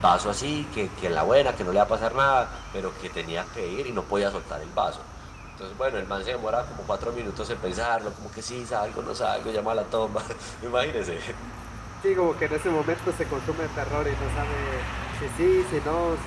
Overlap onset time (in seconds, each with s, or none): none